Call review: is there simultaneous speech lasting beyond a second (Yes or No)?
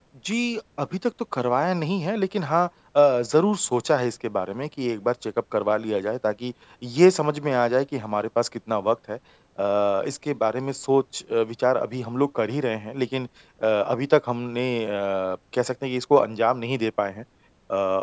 No